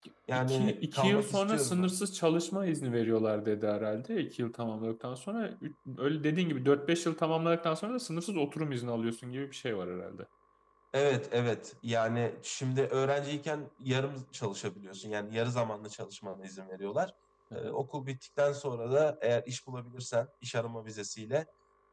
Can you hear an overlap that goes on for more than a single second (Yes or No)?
Yes